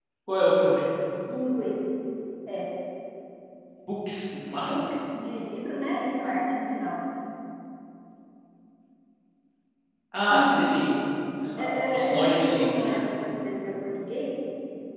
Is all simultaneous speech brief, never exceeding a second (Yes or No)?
No